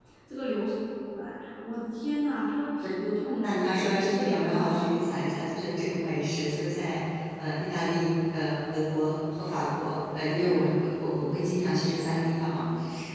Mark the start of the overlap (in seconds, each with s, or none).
3.4 s